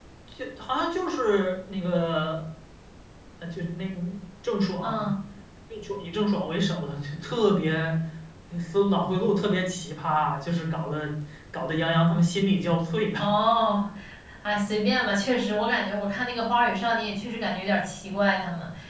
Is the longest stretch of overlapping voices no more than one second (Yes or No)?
Yes